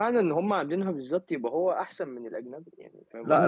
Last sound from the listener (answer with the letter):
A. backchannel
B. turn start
B